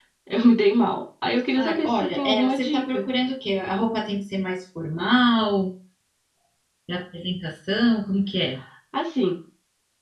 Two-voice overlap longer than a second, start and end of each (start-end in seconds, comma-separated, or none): 1.6-3.0